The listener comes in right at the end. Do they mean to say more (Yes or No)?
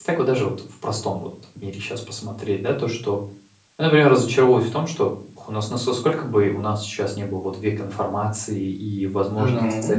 No